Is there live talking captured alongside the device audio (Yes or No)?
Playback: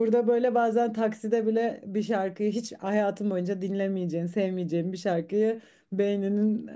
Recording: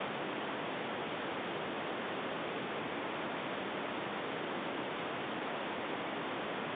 No